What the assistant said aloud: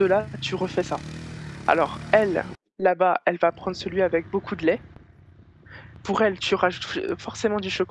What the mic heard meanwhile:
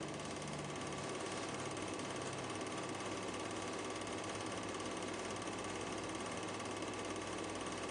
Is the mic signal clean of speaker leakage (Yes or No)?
Yes